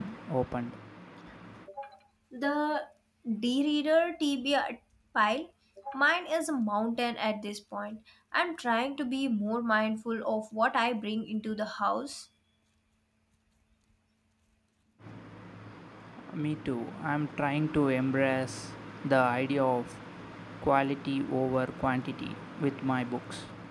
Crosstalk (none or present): none